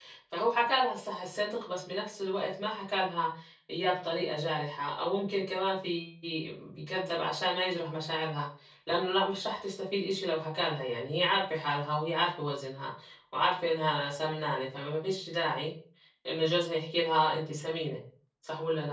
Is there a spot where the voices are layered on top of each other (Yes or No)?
No